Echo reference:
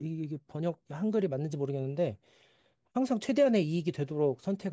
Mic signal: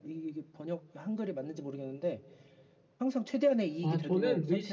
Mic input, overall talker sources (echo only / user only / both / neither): both